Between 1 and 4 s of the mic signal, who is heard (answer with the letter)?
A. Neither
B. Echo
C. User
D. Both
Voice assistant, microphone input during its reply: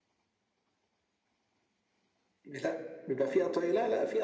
B